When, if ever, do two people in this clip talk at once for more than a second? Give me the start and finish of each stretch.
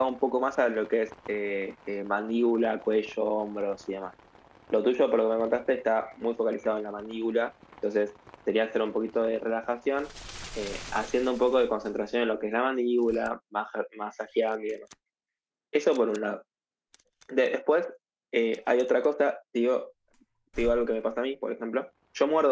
none

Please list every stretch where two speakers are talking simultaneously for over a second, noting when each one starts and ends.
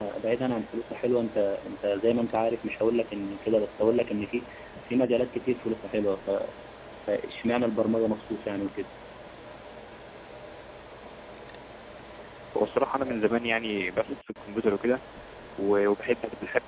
none

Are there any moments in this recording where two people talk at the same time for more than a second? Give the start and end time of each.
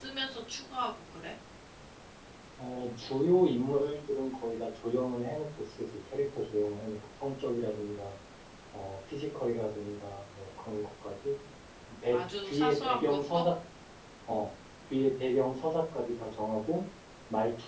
12.1-13.4

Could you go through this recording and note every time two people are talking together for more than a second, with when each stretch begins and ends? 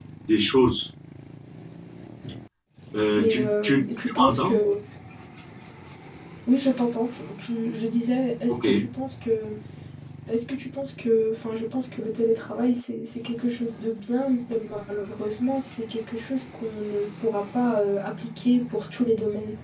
3.2-4.5

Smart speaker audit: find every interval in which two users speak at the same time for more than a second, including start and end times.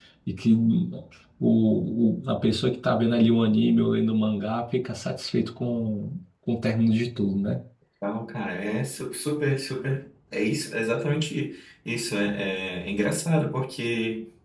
none

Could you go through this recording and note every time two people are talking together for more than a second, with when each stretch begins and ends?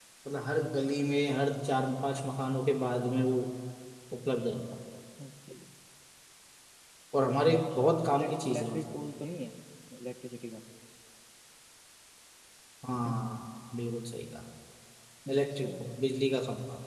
7.5-9.0

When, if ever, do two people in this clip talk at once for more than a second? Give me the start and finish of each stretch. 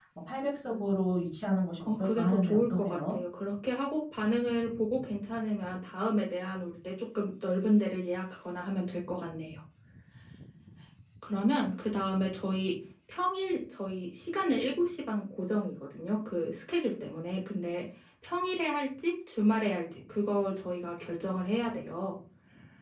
1.9-3.2

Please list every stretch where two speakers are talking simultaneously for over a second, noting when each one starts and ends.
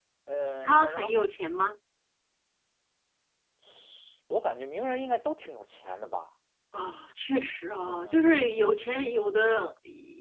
7.8-9.5

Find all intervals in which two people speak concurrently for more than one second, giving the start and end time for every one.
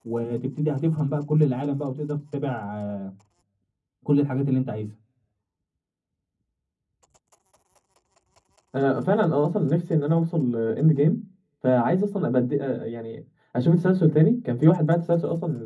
none

